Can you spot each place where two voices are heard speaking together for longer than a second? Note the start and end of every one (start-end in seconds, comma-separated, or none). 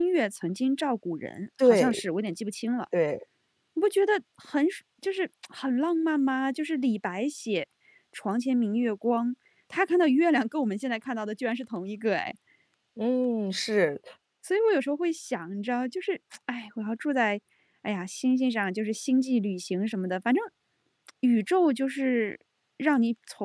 none